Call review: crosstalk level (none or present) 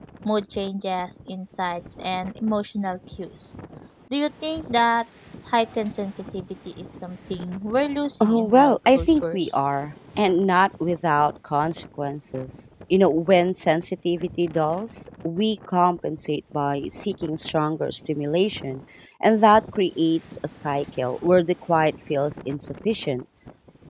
present